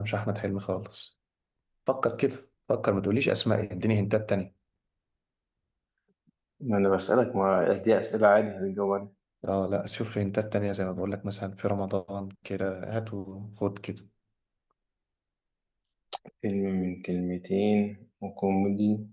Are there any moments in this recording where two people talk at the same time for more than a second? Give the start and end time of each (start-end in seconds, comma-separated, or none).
none